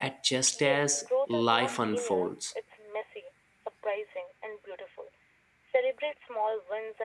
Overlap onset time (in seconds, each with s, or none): 0.6 s